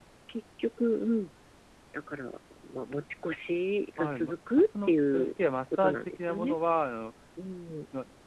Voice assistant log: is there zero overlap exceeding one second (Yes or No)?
No